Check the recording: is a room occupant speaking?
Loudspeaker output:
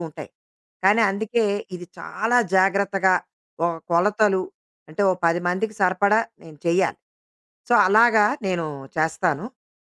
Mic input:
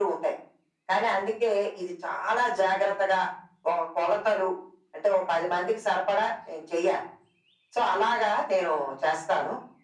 No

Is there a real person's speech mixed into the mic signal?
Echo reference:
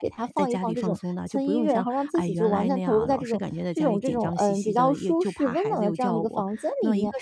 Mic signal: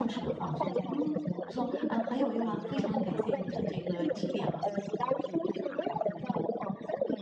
Yes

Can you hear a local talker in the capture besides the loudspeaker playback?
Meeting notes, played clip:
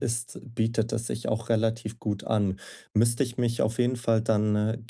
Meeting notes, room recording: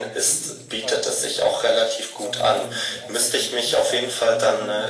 Yes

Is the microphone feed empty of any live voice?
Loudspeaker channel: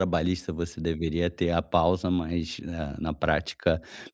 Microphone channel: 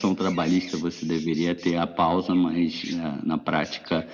Yes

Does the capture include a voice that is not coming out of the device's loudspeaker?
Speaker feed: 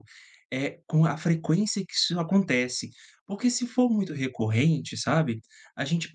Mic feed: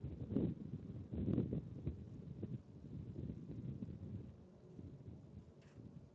No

